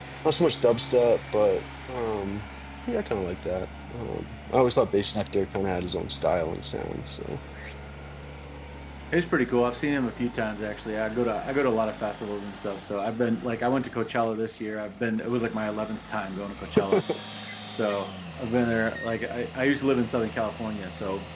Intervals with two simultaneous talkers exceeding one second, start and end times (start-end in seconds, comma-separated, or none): none